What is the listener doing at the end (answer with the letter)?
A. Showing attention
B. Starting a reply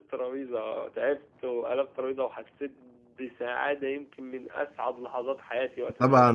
B